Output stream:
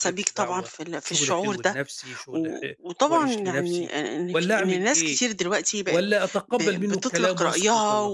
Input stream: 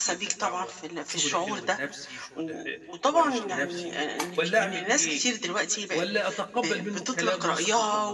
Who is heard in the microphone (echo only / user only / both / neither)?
echo only